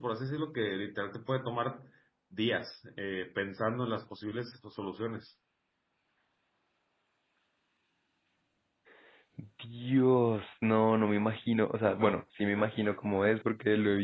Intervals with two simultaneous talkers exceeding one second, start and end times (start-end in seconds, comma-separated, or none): none